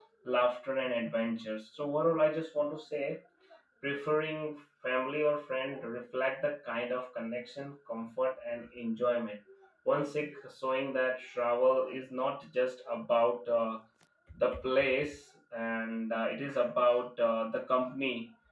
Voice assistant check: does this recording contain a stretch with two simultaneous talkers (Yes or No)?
No